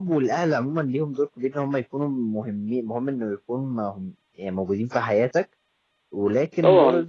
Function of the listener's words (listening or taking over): listening